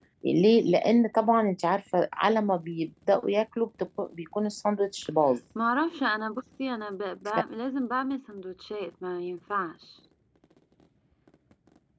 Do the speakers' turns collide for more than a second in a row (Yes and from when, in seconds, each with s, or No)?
No